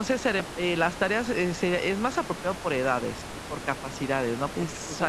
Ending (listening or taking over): listening